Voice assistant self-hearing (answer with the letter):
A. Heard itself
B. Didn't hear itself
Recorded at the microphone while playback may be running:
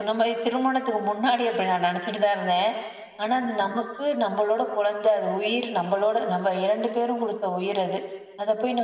A